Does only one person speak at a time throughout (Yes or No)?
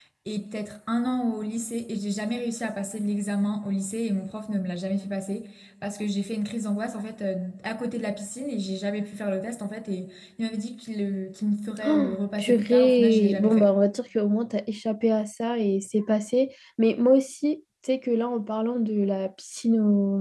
No